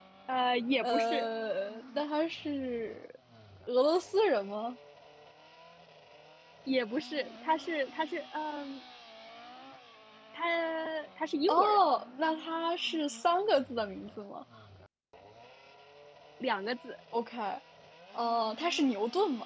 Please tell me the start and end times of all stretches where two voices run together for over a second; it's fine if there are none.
none

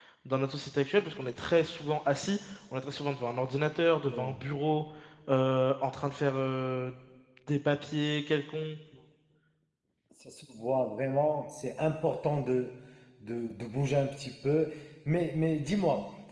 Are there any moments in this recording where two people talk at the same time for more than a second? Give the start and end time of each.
none

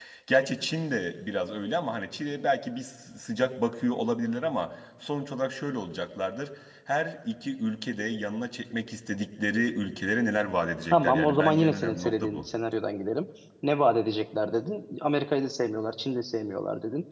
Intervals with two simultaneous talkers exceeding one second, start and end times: 10.9-12.4

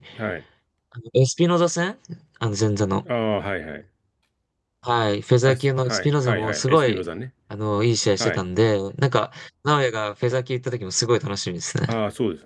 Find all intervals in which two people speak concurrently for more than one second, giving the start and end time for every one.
5.5-7.0

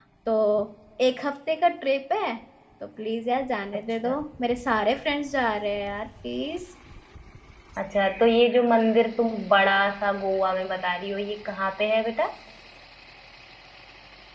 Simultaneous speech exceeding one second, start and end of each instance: none

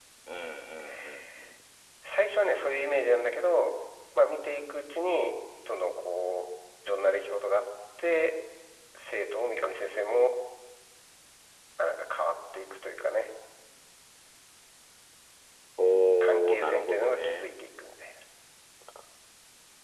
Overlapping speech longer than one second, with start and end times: 16.2-17.4

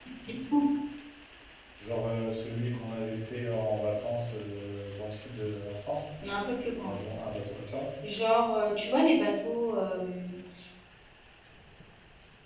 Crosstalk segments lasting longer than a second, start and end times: none

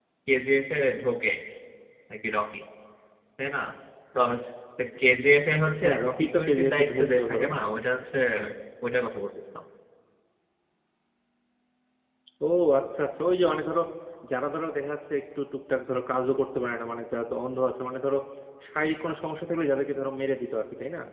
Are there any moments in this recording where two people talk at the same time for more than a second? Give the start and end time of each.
5.8-7.5

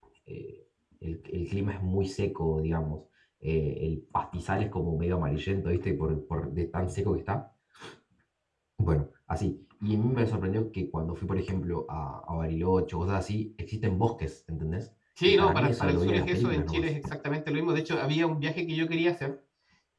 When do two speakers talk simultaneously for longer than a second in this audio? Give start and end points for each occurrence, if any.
15.3-16.8

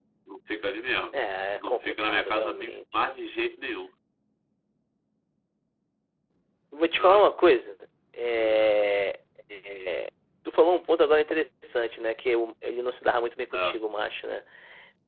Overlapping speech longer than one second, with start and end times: 1.5-2.7

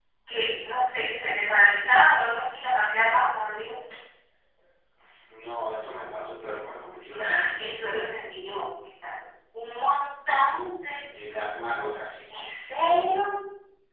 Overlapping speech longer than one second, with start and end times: none

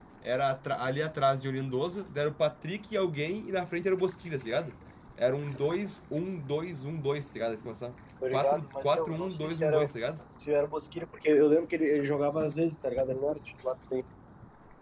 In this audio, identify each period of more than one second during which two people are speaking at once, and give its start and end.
8.3-9.8

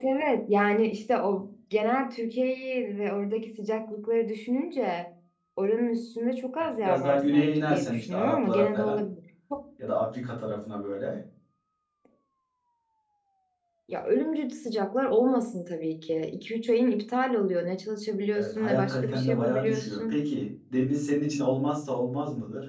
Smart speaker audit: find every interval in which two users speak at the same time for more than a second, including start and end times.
6.8-9.0, 18.4-20.2

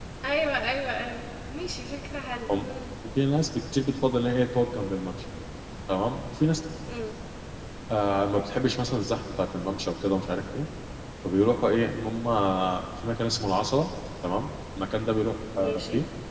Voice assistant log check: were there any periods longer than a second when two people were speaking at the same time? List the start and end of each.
none

